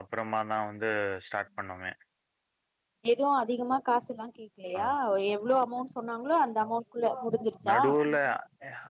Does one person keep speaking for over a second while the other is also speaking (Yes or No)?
No